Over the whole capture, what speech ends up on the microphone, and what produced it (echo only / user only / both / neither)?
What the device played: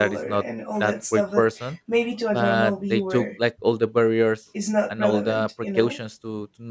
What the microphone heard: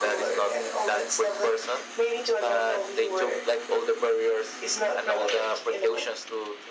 echo only